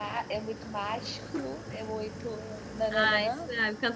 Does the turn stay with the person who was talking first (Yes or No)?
No